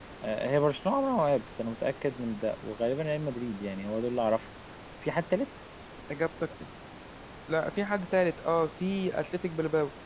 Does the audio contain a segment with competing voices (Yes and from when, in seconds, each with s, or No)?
No